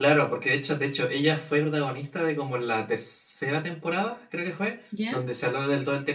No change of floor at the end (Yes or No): Yes